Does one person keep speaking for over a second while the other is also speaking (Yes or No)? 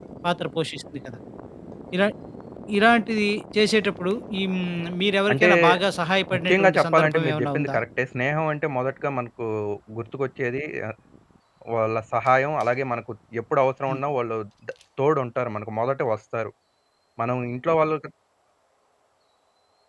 Yes